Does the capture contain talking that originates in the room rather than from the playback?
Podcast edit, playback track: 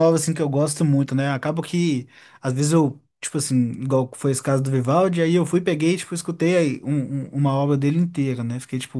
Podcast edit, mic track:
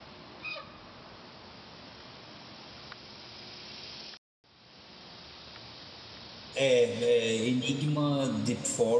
Yes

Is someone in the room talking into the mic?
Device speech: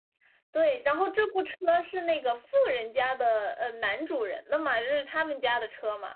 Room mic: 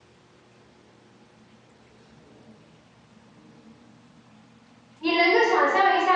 Yes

